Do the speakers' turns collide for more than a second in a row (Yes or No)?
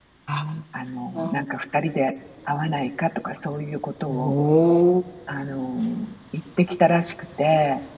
No